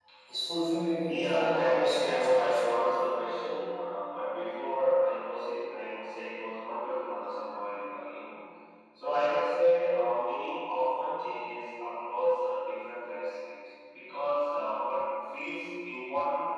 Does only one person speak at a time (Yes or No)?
No